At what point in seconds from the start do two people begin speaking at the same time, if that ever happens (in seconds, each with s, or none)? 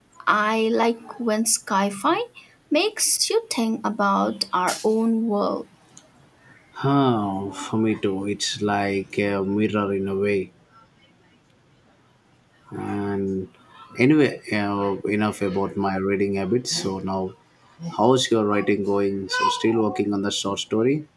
none